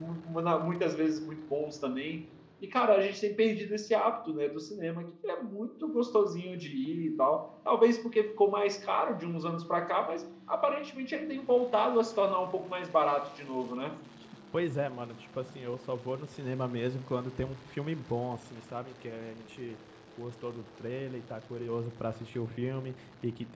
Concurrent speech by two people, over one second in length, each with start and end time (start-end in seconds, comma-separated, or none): none